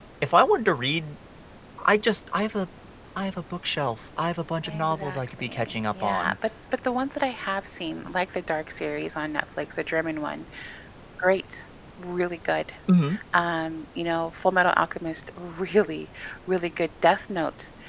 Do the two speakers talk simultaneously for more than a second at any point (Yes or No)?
Yes